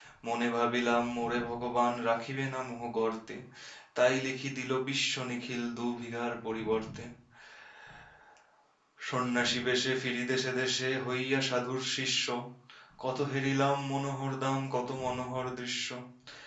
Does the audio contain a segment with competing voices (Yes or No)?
No